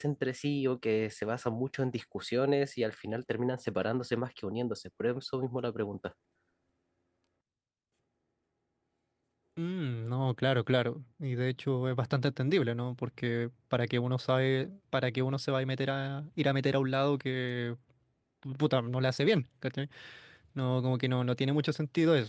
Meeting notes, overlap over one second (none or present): none